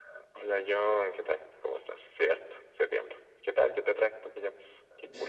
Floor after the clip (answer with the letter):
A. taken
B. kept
A